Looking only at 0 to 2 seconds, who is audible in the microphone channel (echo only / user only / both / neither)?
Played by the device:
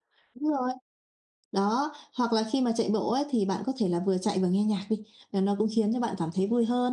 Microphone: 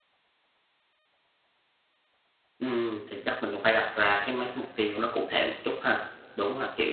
neither